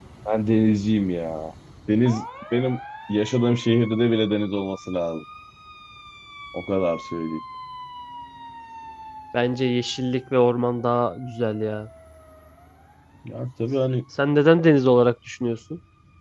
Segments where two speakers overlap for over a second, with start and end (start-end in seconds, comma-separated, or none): none